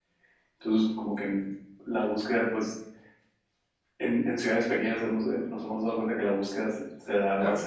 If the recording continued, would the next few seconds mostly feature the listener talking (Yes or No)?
No